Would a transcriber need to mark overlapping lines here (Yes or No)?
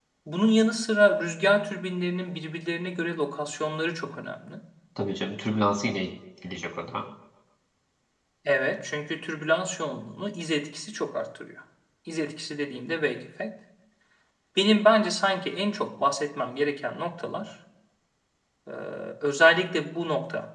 No